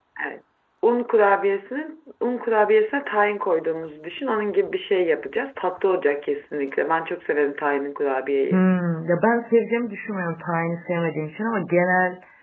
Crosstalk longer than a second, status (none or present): none